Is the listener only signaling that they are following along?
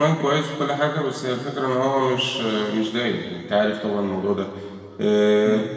Yes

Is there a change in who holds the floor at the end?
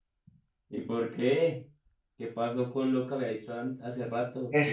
Yes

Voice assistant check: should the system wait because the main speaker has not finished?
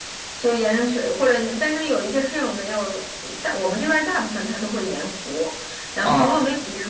Yes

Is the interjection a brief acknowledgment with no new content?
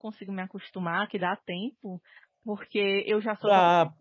Yes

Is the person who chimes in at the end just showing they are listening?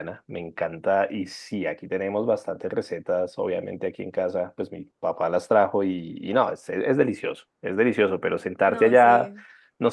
Yes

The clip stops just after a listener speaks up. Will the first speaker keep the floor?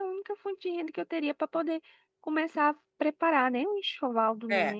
No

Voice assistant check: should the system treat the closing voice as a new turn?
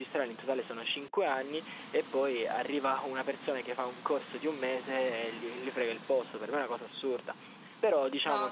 No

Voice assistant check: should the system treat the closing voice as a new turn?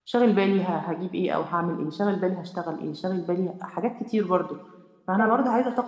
No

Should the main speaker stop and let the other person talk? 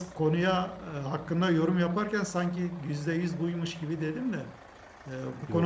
No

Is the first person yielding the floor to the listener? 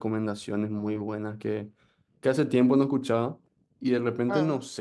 No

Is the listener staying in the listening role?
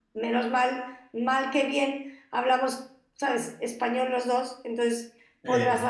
Yes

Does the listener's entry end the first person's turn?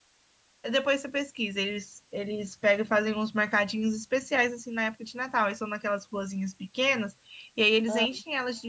No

